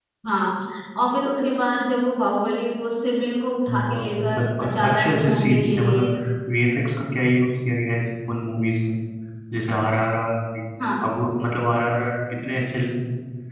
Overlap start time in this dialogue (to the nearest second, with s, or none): 4 s